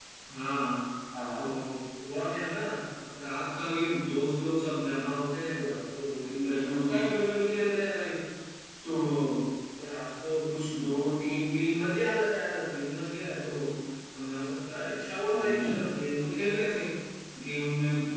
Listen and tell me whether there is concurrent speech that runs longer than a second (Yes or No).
No